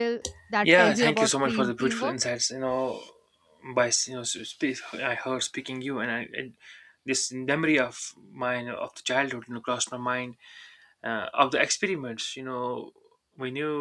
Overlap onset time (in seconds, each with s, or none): 0.6 s